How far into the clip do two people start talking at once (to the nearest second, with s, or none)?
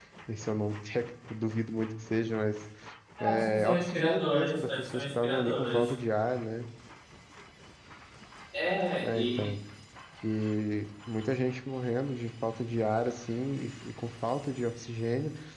3 s